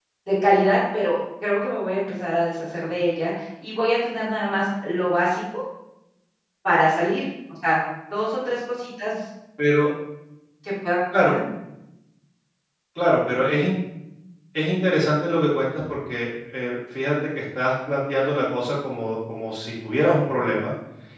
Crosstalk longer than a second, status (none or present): none